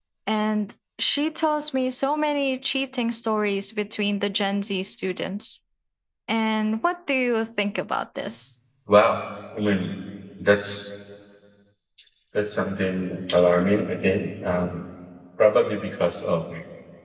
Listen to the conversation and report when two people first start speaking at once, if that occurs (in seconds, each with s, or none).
none